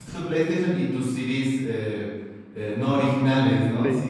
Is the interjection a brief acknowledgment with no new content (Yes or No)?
Yes